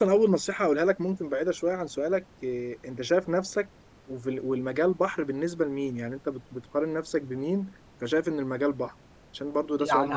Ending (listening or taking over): taking over